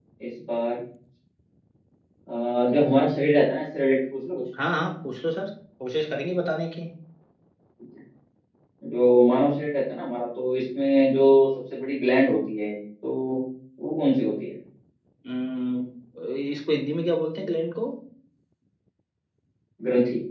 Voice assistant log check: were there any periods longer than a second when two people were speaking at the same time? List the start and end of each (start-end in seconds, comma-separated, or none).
none